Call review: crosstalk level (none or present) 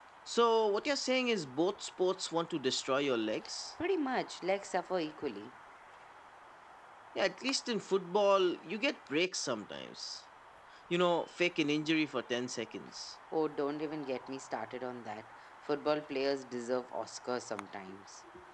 none